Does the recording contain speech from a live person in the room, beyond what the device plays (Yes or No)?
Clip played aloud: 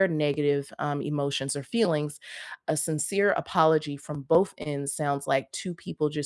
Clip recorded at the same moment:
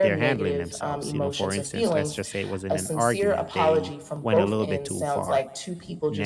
Yes